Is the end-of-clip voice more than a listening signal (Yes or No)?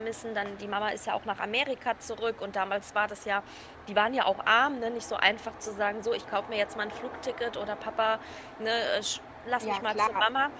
Yes